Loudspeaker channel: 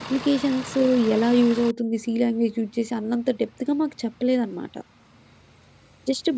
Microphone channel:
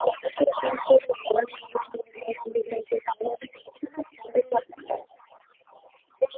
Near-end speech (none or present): none